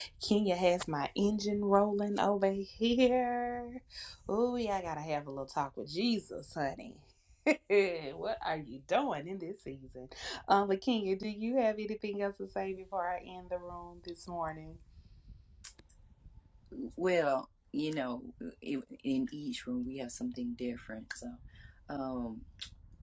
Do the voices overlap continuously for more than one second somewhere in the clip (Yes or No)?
No